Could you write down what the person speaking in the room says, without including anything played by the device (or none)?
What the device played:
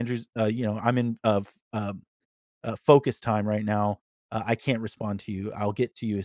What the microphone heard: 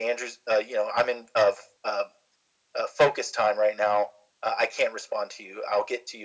none